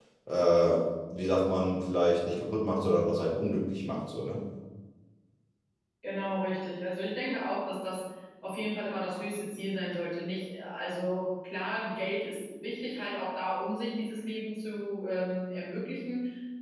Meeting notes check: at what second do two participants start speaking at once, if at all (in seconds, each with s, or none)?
none